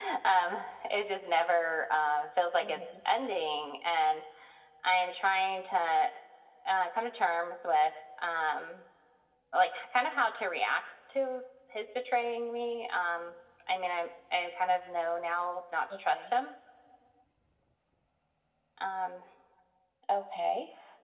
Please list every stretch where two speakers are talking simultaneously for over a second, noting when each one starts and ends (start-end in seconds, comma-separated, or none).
none